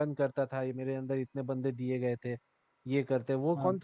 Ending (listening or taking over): listening